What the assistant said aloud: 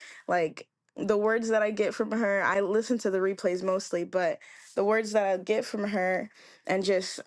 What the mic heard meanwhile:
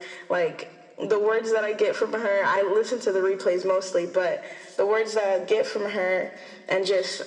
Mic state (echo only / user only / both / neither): echo only